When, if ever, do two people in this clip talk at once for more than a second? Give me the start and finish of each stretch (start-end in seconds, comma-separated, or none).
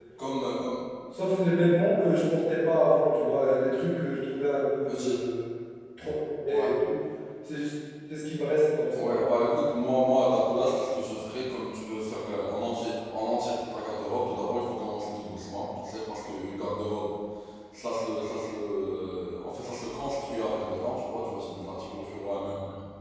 none